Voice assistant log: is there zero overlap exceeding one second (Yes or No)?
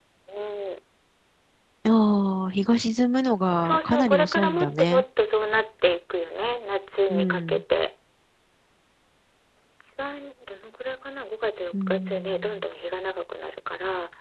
No